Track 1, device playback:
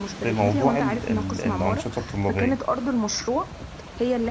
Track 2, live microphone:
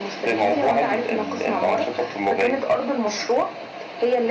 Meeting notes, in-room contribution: none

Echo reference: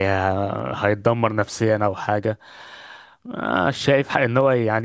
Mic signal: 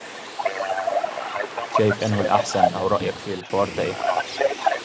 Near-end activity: present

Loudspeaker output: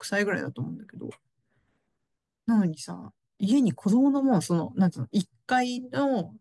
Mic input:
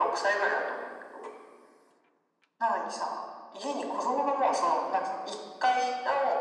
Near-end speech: none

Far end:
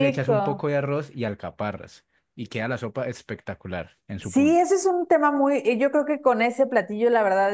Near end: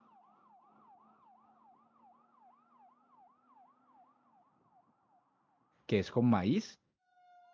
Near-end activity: present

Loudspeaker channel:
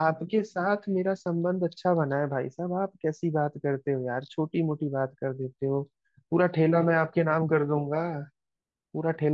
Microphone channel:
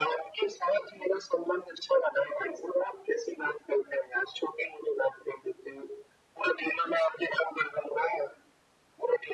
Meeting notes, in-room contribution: none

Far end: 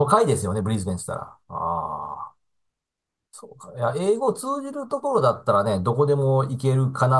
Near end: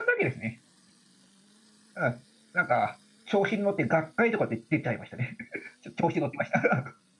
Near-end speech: present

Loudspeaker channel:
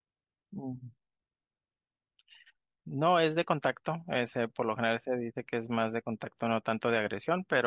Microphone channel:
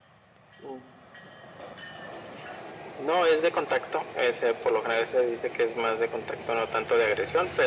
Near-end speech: none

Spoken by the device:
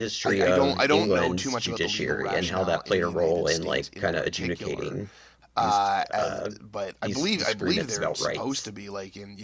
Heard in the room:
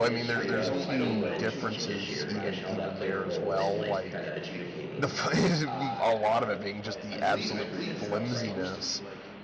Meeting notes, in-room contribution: present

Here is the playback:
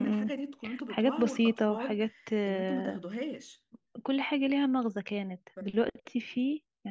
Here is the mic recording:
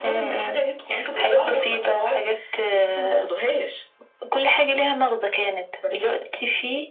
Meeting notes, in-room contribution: none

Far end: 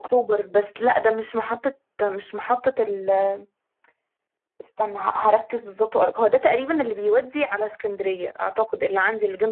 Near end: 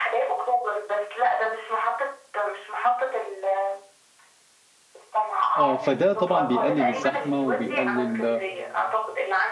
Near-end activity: present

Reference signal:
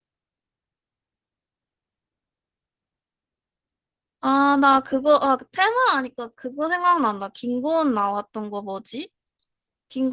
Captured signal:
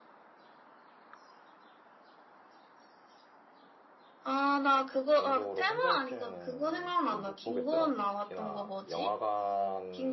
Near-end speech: present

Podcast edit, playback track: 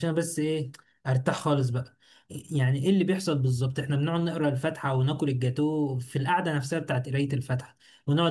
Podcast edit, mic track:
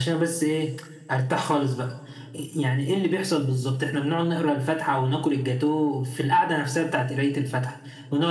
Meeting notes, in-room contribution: none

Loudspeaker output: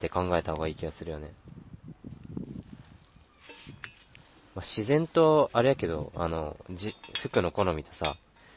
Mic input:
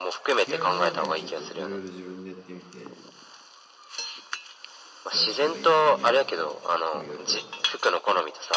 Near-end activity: present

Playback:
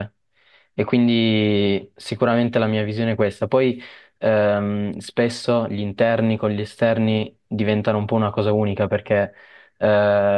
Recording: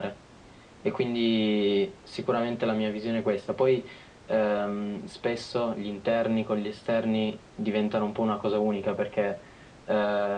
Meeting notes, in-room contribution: none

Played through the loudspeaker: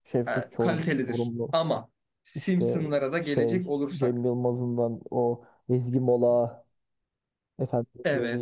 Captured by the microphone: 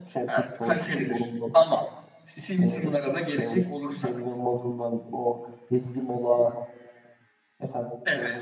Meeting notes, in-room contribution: none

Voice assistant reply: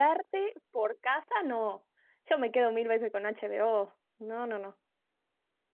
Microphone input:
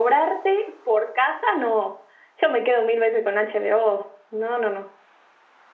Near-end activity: none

